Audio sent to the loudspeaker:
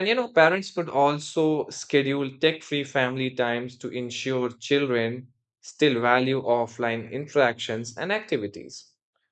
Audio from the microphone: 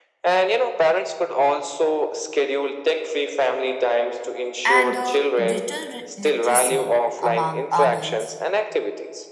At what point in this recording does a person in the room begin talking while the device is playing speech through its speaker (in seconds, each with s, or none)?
4.6 s